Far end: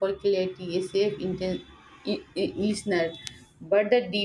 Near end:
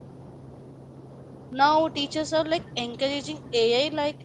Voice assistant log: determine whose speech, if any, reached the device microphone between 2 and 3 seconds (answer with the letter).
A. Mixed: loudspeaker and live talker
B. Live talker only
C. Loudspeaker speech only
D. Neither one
B